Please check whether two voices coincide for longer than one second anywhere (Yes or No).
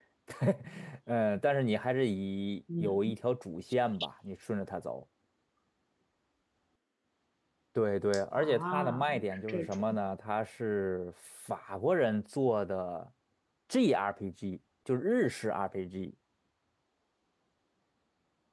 Yes